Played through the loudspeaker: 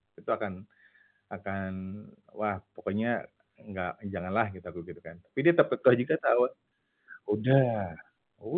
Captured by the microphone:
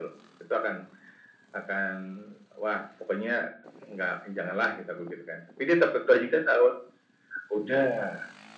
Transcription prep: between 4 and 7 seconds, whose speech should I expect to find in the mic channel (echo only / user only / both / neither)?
echo only